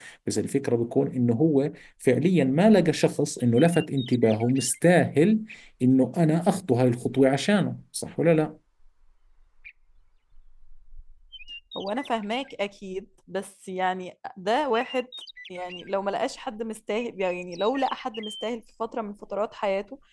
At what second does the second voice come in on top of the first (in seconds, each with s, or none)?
none